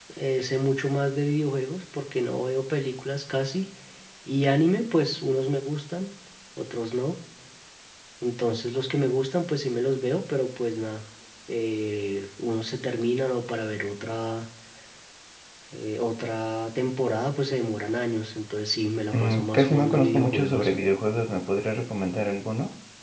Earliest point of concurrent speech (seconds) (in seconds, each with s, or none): 19.1 s